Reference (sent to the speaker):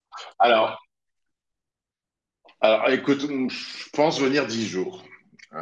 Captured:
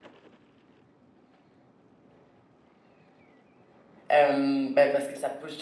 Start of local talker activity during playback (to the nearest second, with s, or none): 4 s